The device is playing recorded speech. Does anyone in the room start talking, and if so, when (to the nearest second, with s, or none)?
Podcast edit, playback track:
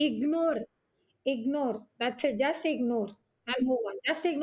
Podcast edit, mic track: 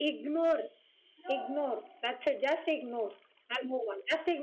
1 s